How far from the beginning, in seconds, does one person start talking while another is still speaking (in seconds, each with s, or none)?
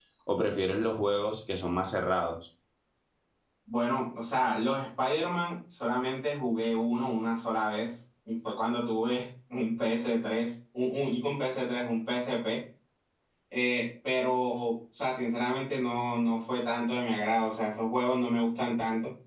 none